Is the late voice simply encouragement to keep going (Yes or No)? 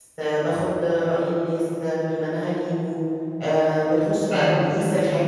Yes